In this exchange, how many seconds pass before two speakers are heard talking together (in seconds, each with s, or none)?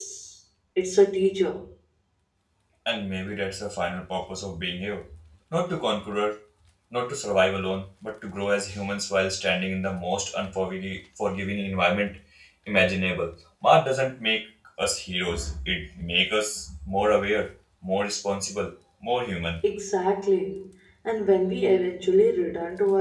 none